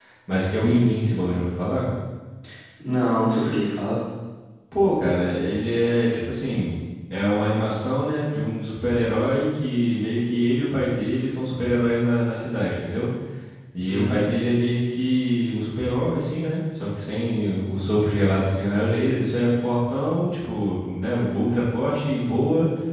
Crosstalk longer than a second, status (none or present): none